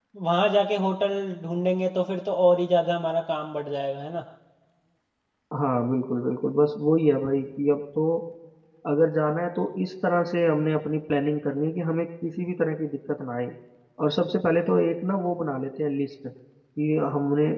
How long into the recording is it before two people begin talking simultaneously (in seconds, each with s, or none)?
none